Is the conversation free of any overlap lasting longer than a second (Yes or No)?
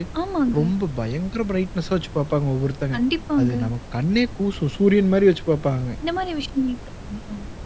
Yes